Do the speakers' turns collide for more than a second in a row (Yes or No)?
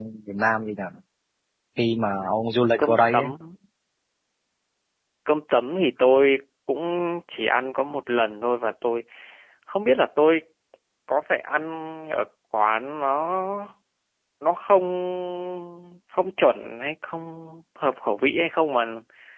No